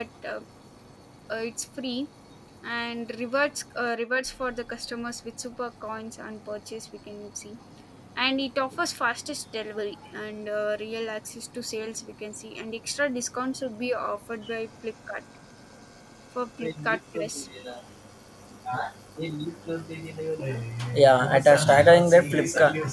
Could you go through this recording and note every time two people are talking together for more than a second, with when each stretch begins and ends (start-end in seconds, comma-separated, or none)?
none